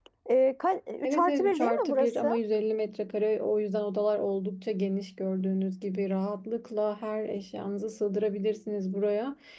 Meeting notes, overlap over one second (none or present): present